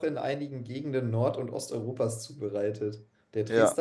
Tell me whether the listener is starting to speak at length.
No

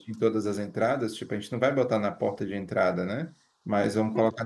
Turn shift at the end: No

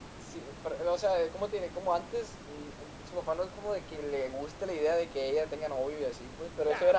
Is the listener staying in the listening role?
No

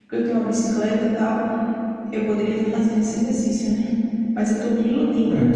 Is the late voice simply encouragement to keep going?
Yes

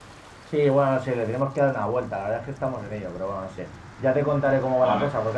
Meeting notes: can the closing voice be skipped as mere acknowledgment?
Yes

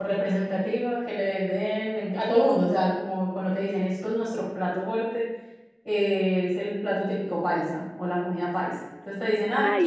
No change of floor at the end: Yes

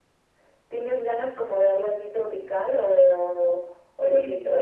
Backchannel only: No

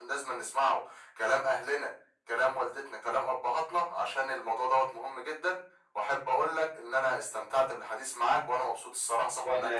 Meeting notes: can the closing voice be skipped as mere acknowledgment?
No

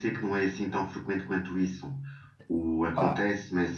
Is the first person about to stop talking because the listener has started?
No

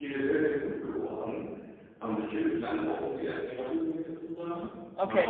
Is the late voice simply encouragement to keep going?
Yes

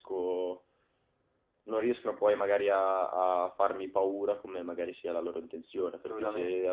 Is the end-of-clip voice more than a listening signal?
No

